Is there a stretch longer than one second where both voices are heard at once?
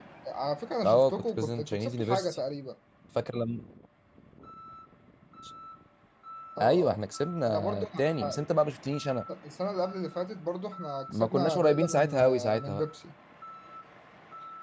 Yes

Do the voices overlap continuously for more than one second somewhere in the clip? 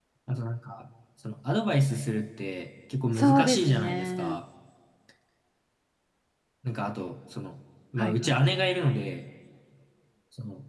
Yes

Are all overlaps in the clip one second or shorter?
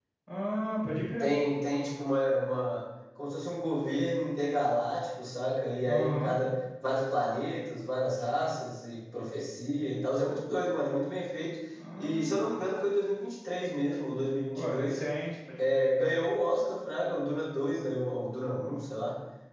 Yes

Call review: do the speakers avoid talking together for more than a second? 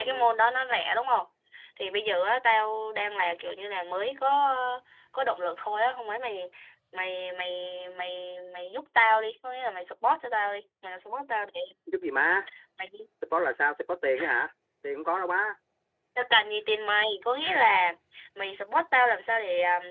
Yes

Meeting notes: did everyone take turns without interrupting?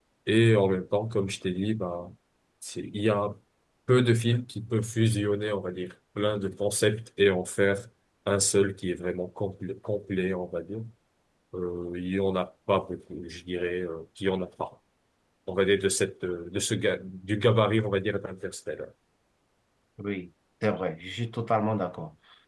Yes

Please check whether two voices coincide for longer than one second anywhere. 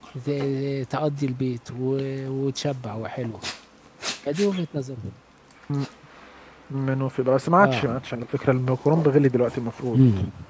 No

